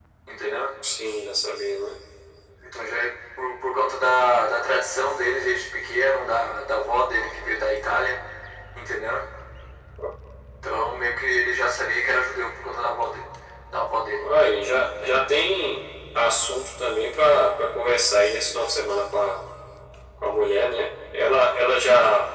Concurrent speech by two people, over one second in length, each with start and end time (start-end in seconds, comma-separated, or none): none